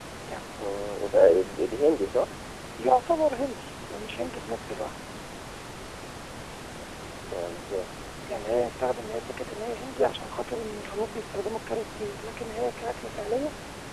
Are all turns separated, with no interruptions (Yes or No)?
Yes